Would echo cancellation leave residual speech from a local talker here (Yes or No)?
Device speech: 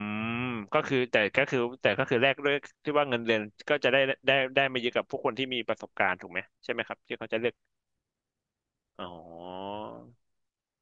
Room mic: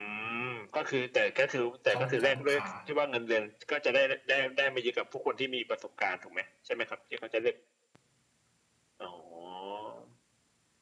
Yes